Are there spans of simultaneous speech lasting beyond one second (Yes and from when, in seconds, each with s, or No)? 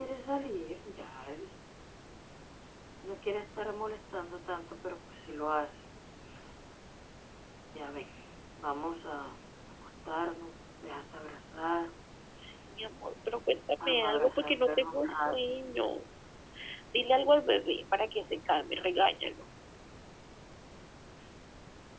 Yes, from 13.8 s